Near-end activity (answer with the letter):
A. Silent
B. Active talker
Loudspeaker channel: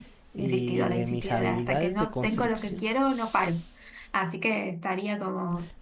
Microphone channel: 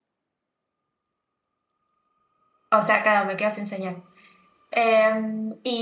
B